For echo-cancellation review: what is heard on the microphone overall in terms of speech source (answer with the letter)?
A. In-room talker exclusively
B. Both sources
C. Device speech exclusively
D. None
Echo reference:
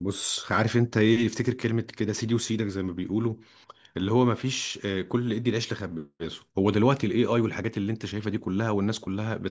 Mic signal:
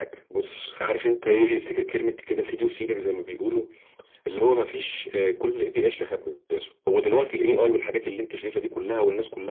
C